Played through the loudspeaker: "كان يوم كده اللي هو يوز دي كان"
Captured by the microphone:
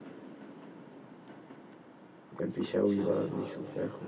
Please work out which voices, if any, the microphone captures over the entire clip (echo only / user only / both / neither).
user only